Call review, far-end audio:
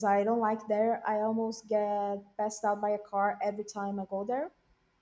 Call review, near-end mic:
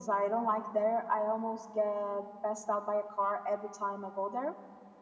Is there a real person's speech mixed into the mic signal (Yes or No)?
No